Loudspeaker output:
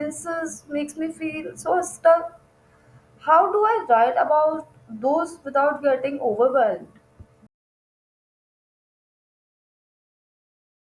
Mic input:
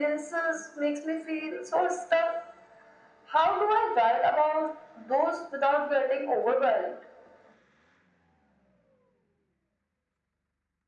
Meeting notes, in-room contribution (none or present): none